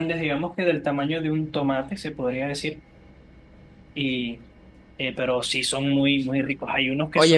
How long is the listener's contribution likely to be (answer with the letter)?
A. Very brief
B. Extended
B